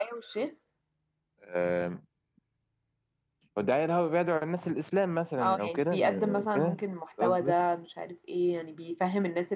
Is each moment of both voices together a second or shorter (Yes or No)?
No